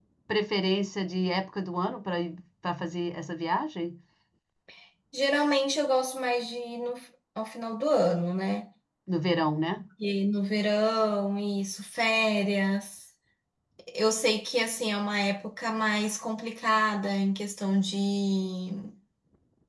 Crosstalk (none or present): none